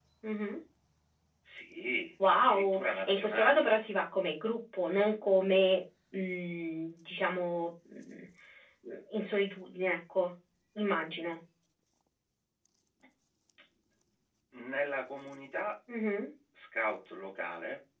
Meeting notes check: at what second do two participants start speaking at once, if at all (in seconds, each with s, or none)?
2.3 s